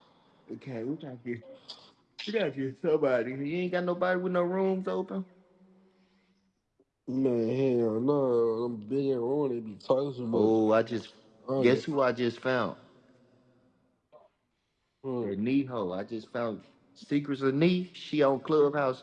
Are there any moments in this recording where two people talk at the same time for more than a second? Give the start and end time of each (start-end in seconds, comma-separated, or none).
none